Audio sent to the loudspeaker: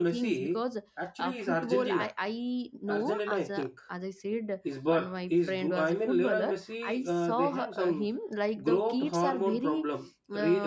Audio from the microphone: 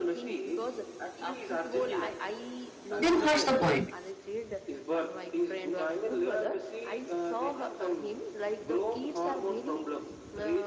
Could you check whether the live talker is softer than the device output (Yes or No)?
No